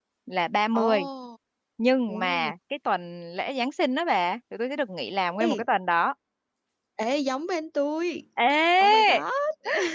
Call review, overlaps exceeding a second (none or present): none